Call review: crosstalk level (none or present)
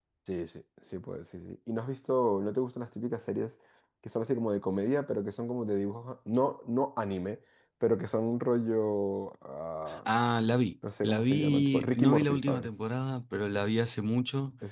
present